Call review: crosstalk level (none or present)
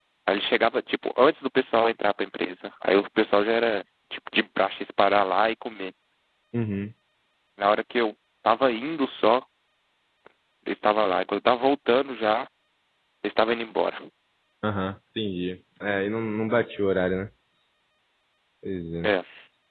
none